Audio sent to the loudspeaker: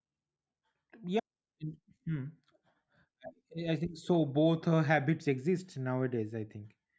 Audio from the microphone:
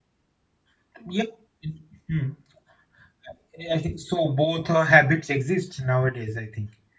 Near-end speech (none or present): none